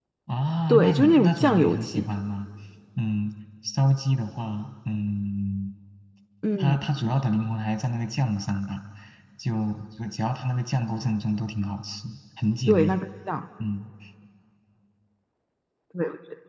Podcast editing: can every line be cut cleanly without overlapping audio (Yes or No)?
No